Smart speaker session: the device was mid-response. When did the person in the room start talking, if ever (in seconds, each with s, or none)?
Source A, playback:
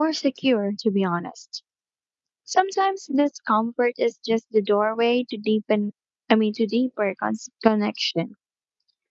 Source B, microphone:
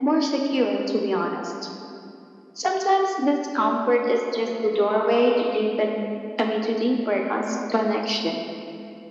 none